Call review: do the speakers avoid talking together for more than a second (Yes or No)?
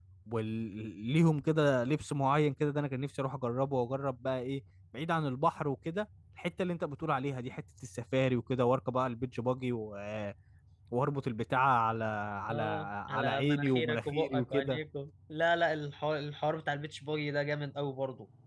No